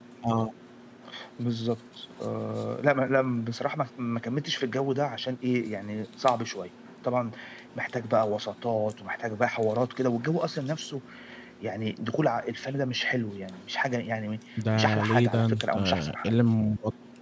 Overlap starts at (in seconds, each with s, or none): 14.6 s